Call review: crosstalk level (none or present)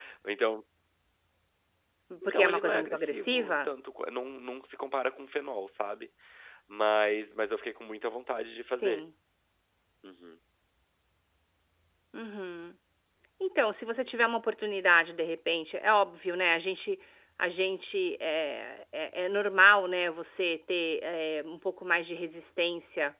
present